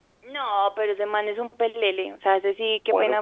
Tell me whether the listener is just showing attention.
No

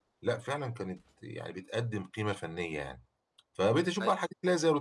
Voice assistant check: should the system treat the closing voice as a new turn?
No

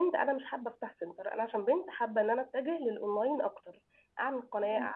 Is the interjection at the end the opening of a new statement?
No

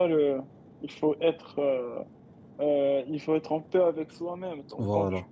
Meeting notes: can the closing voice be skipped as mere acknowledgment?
Yes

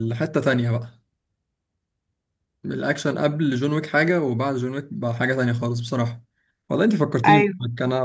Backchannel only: Yes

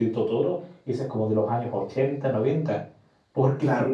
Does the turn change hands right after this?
No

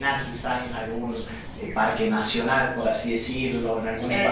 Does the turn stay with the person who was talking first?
Yes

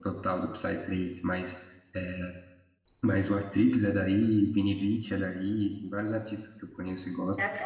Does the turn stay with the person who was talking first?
No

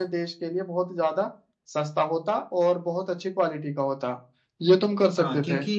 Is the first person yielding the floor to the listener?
Yes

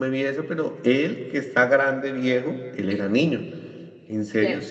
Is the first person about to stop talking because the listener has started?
No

